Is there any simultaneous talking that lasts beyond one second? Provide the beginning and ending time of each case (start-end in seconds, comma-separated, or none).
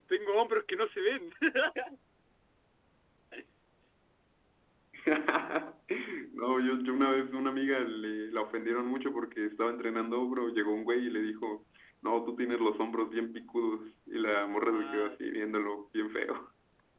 none